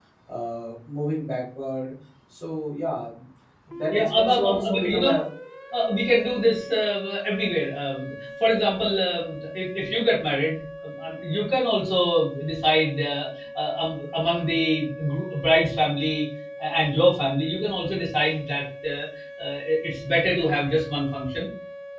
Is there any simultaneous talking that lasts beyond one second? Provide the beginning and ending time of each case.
3.9-5.2

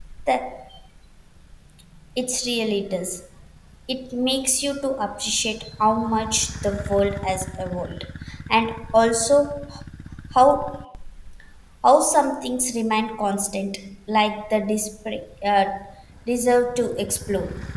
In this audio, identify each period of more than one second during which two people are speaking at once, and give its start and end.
none

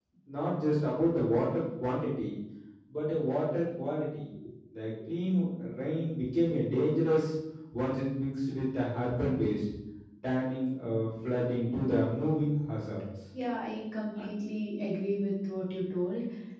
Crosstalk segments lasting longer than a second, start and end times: none

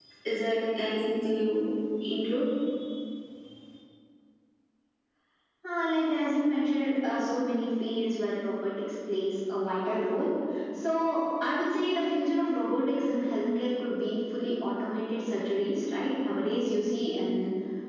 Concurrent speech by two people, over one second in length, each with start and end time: none

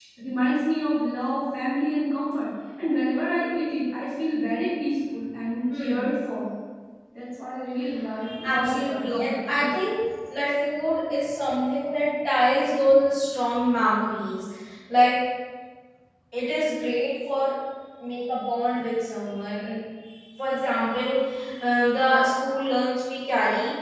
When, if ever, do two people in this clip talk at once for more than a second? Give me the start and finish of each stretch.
8.4-9.7

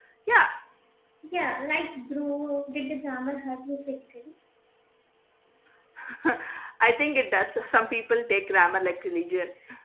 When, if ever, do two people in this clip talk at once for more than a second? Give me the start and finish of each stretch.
none

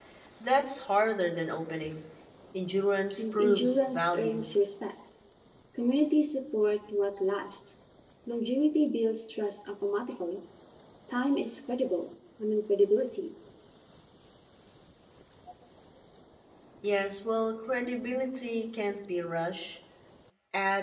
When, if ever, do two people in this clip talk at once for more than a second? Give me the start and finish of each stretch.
3.2-4.4

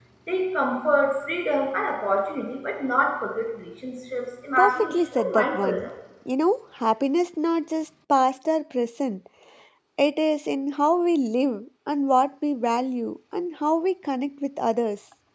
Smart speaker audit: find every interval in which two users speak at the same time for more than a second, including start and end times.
4.6-5.9

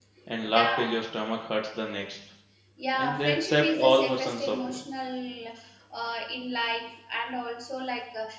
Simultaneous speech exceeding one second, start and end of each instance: 3.0-4.8

